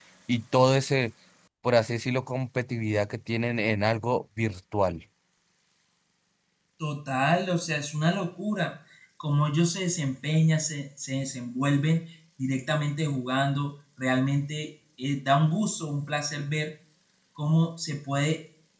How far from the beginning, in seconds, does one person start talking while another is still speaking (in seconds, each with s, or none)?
none